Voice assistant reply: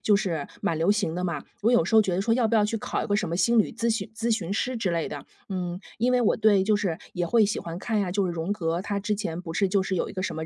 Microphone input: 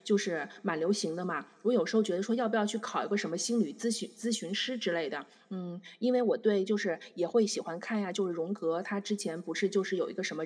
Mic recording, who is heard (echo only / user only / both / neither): echo only